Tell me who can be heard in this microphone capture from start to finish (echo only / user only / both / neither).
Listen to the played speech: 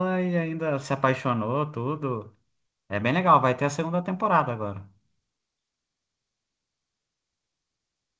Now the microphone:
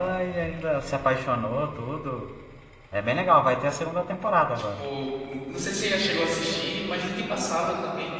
both